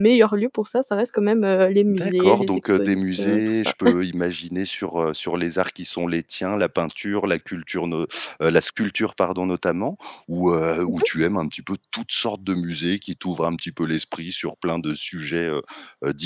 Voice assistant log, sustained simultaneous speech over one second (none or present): present